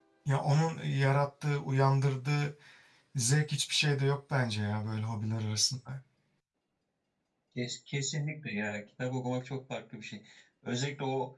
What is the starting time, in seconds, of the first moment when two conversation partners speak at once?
none

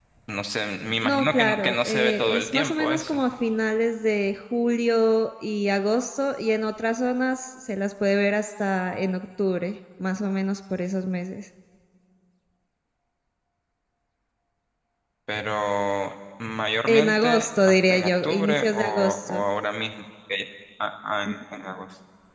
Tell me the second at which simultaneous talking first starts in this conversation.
1.0 s

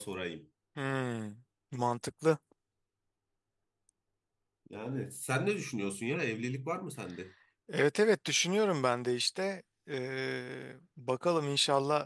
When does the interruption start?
none

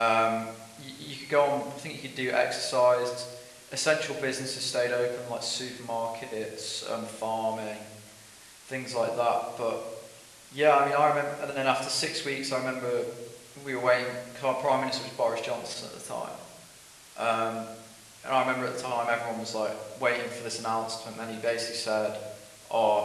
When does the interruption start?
none

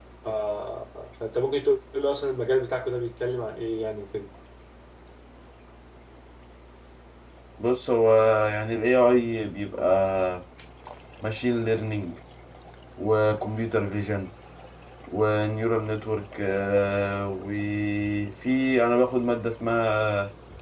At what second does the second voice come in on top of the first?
none

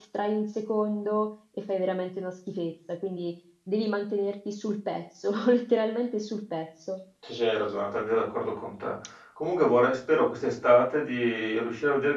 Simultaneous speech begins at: none

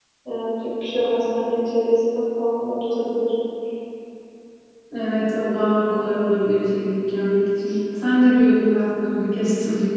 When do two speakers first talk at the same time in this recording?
none

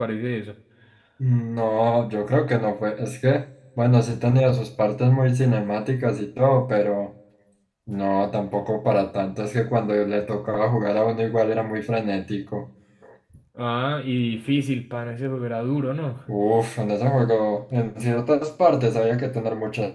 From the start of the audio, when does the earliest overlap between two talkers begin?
none

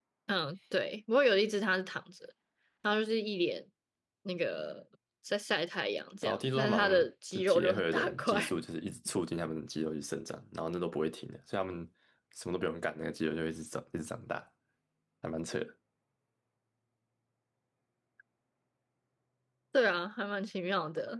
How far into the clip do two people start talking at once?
6.2 s

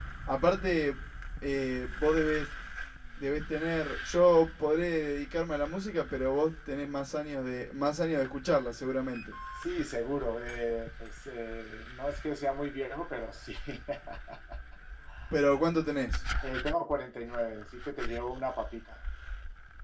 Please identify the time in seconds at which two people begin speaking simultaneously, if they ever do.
none

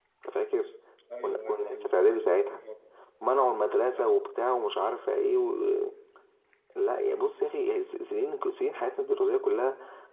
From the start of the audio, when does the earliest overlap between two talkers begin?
1.2 s

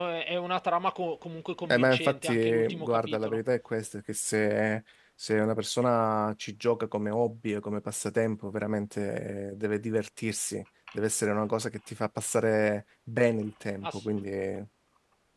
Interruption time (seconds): 1.6 s

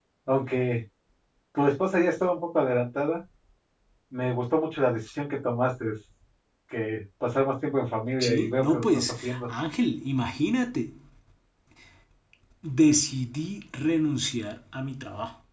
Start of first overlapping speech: 8.1 s

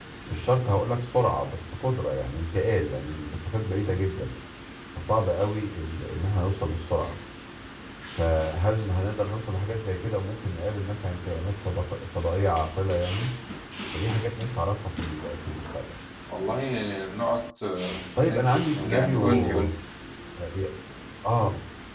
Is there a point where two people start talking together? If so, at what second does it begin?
18.3 s

